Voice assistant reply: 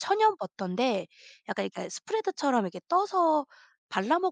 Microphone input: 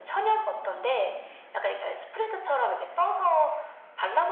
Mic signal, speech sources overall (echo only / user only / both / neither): echo only